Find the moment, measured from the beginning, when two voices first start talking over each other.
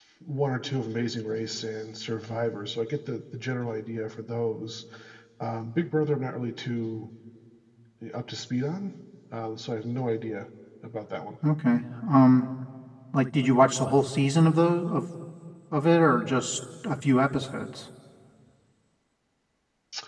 none

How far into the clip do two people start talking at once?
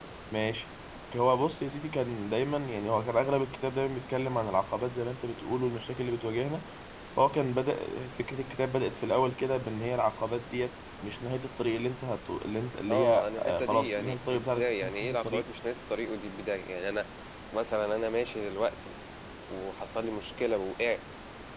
13 s

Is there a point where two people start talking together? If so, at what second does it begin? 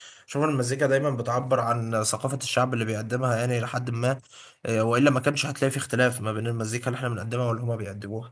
none

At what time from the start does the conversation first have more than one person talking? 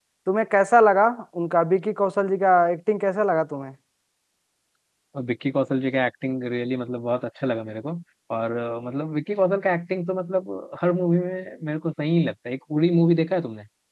none

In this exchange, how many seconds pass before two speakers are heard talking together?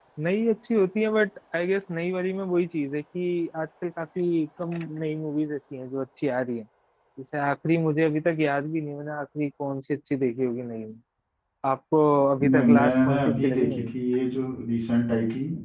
12 s

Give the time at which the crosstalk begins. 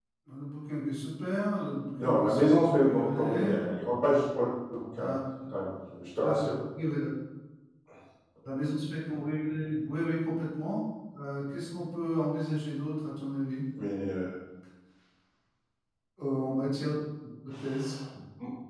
2 s

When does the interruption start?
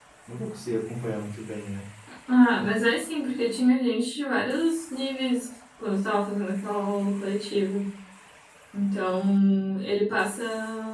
none

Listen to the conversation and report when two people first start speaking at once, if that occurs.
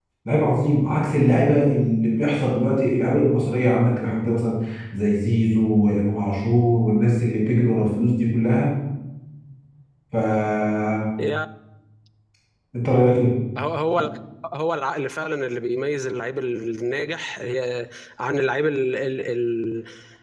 none

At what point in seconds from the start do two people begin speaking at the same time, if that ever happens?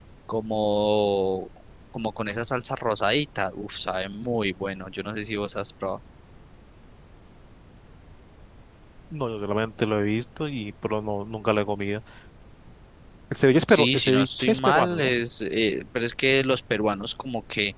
14 s

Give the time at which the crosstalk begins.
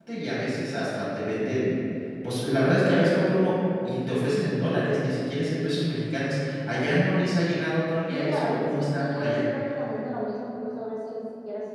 8 s

